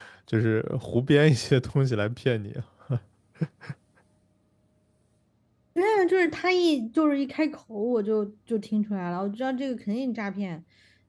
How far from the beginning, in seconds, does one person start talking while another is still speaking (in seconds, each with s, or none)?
none